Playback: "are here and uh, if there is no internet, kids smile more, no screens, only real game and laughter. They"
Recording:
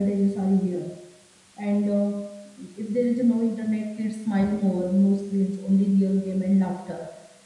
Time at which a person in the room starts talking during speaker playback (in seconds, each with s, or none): none